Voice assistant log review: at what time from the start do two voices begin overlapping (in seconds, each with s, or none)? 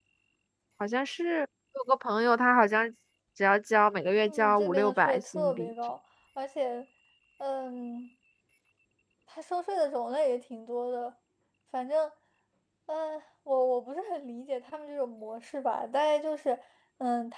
4.3 s